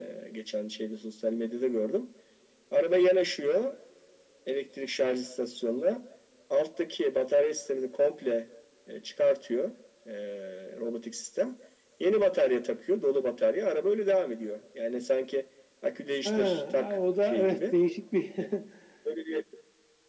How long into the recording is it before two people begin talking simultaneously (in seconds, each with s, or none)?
16.2 s